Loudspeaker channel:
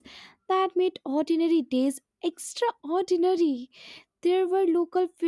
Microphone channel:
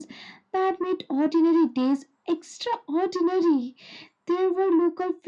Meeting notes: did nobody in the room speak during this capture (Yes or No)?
Yes